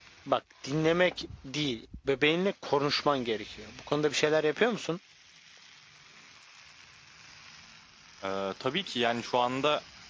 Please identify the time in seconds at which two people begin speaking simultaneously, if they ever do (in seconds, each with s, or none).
none